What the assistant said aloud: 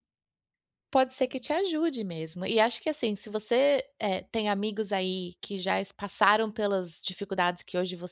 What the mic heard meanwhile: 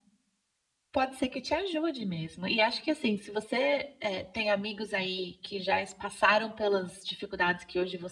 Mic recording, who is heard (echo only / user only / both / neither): echo only